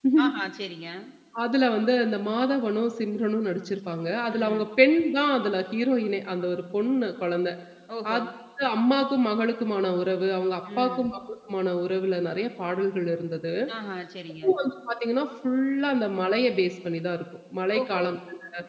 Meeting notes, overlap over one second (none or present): none